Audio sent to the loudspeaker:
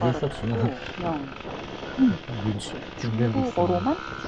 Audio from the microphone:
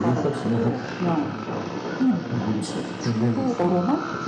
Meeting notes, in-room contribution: present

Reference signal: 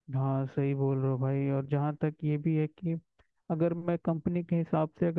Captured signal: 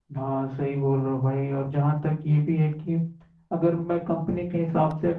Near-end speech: none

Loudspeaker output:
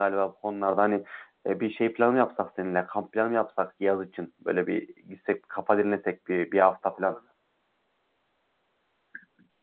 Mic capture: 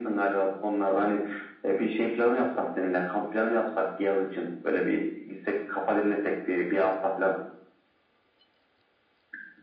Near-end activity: none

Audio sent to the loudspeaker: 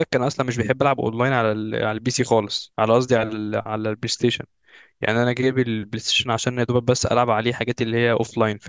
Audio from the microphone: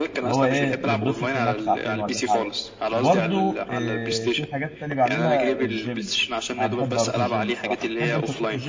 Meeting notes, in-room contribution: present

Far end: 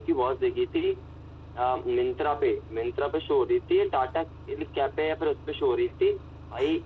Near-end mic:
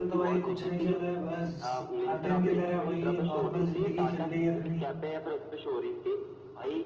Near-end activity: present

